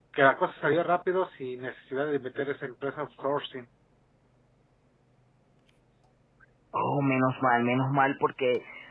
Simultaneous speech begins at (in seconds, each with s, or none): none